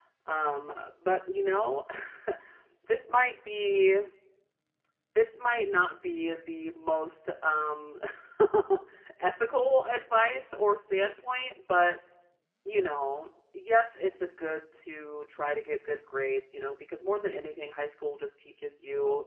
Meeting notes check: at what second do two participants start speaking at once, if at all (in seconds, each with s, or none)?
none